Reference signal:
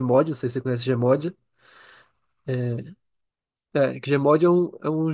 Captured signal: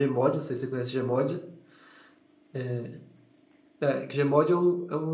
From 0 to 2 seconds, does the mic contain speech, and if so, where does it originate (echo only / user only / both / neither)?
echo only